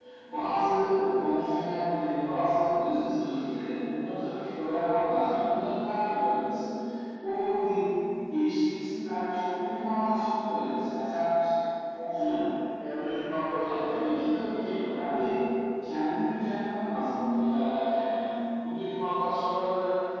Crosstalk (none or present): present